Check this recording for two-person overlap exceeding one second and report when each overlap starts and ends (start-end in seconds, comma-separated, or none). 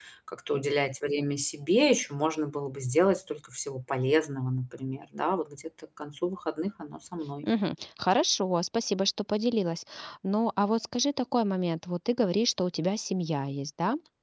none